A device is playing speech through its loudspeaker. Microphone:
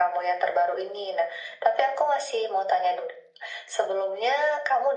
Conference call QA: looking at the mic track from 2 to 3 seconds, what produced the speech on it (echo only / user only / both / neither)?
echo only